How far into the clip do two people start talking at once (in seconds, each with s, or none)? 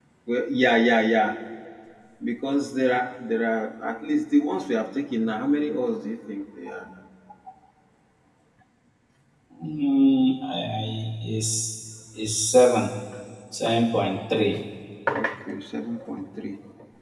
none